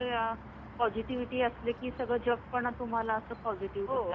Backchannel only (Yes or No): No